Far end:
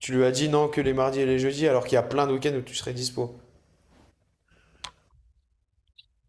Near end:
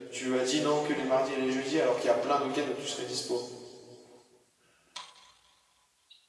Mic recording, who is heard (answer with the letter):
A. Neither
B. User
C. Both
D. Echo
D